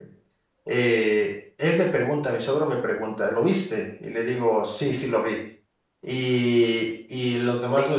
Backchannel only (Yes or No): Yes